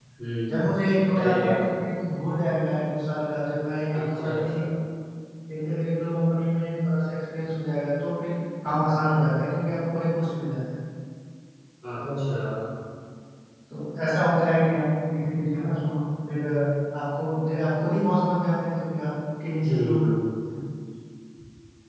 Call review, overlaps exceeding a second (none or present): present